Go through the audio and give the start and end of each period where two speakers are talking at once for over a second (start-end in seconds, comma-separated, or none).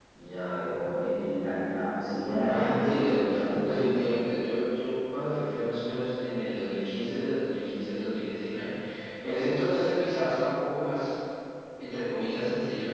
2.5-3.9